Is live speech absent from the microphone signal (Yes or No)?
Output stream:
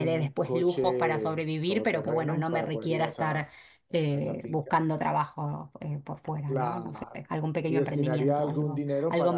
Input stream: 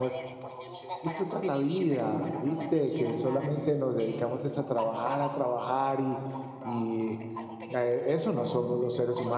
No